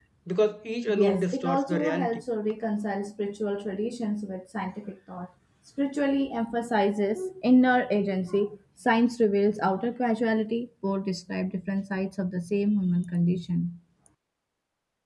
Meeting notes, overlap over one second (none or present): present